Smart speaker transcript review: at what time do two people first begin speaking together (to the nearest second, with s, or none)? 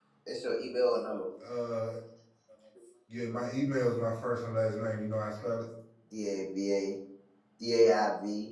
none